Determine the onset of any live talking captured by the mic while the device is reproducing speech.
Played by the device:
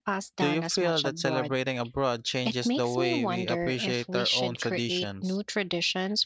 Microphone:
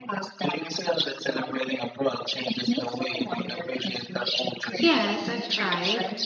5 s

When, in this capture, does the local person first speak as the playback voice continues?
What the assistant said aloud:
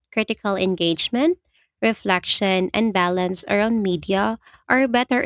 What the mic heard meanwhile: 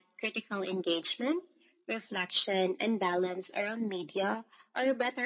none

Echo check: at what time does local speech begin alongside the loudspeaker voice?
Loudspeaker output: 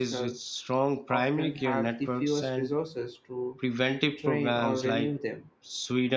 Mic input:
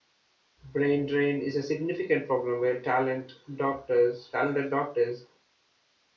1 s

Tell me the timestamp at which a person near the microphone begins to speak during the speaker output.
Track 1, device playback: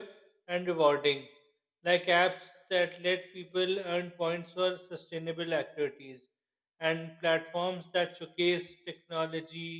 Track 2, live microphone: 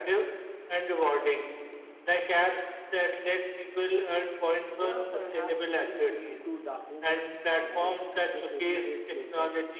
5 s

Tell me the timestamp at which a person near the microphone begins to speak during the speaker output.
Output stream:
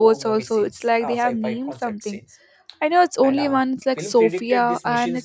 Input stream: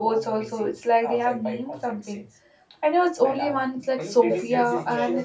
4 s

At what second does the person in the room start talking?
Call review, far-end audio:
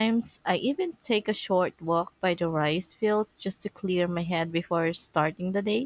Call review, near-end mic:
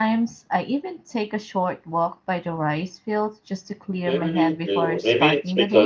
4 s

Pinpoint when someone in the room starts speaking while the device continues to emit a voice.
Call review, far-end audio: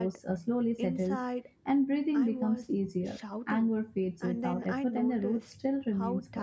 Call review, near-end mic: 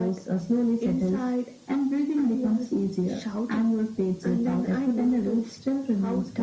none

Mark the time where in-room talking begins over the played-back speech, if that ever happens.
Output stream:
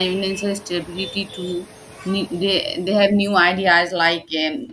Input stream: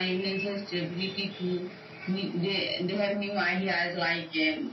none

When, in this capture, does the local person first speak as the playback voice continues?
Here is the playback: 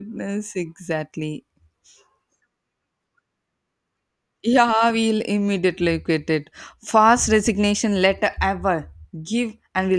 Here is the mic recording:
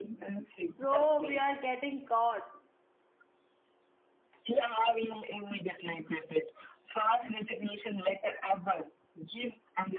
1 s

